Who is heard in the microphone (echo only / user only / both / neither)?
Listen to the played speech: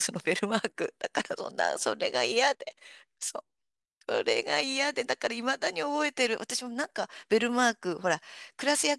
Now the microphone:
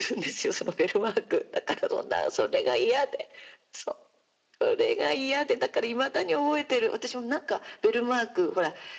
echo only